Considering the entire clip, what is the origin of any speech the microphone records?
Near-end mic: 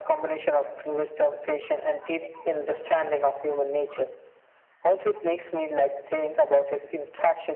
echo only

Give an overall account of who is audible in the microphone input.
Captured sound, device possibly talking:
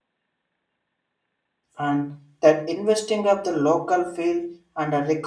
user only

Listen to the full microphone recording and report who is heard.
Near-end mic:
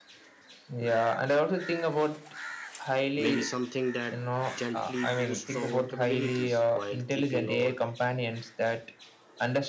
both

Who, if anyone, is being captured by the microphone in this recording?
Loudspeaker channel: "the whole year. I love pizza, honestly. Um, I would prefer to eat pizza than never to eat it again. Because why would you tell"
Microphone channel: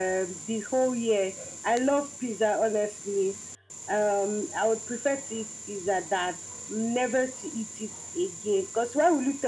echo only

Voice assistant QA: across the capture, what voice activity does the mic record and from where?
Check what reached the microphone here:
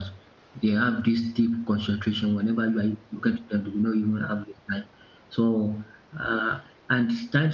user only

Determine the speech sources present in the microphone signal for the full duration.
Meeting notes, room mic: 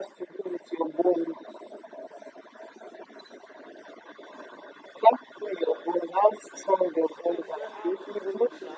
both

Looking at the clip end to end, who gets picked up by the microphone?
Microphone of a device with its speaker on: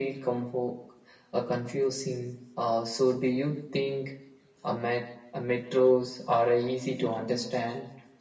echo only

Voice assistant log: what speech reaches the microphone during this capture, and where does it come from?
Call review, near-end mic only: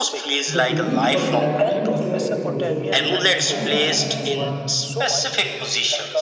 both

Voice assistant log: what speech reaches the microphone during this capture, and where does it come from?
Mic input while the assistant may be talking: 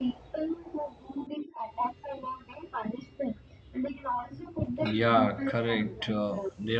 both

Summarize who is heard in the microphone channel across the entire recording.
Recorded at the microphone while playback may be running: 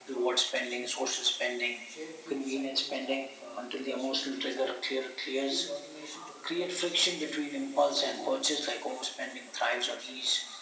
both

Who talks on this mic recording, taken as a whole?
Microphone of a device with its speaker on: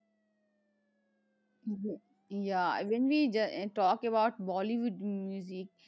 user only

